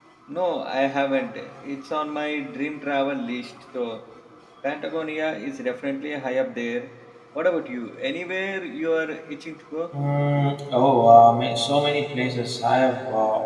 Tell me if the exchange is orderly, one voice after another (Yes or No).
Yes